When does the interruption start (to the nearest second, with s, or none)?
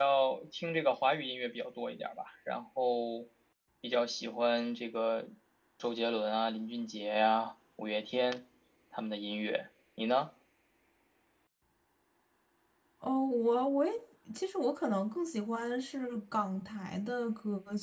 none